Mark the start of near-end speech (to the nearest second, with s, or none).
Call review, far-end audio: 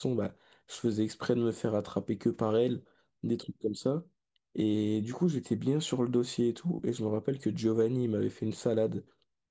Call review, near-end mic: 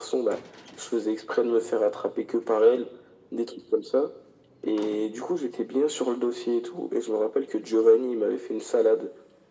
none